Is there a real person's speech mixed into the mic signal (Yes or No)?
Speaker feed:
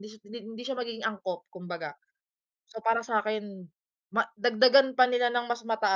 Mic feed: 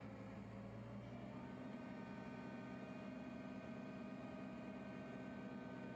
No